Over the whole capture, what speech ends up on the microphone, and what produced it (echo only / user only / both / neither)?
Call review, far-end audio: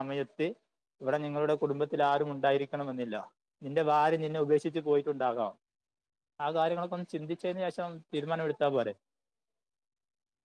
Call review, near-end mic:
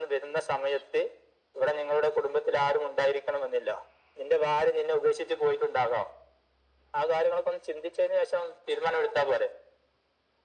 echo only